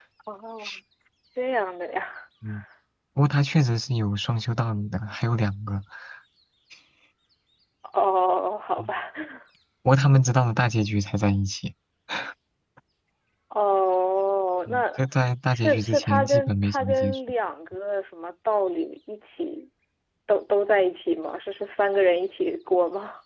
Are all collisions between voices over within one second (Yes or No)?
No